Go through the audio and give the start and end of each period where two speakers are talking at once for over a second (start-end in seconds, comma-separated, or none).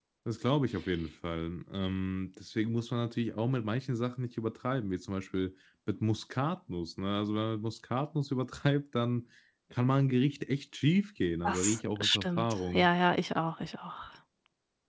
11.4-12.9